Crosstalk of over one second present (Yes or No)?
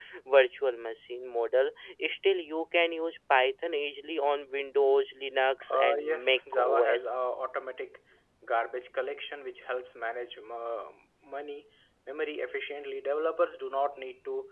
Yes